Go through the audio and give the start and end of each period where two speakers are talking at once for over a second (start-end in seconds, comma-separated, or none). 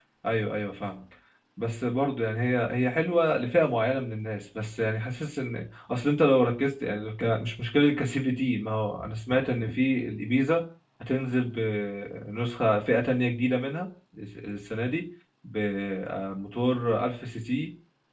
none